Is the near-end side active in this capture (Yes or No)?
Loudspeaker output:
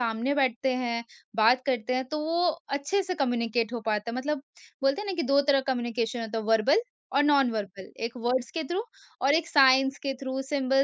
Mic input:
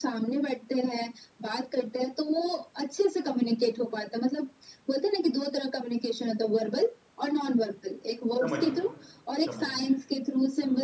Yes